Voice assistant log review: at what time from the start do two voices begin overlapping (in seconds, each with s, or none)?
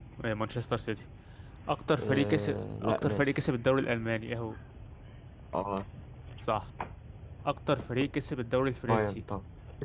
2.0 s